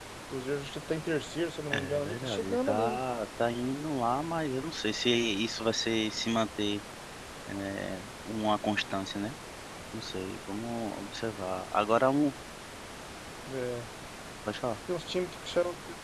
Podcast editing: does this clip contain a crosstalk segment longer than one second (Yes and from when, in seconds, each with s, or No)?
Yes, from 1.7 s